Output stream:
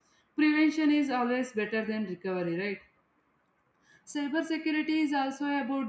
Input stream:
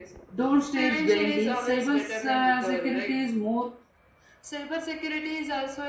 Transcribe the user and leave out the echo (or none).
Don't stare blindly. Cyber uh, security is more